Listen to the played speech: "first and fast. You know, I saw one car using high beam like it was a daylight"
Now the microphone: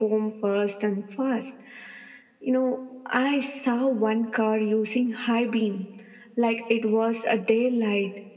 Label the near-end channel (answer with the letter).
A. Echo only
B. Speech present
A